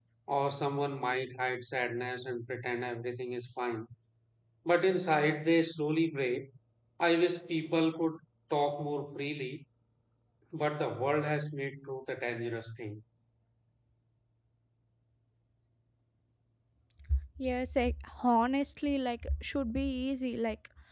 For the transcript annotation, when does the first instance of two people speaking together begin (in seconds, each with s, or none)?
none